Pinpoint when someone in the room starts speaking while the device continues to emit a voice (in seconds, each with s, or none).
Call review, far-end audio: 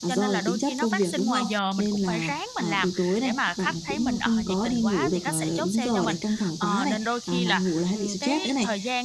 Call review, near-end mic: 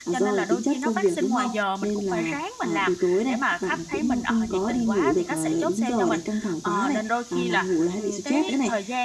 none